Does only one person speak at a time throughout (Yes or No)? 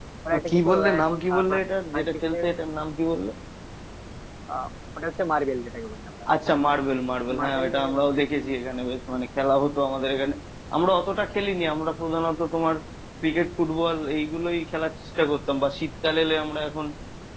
No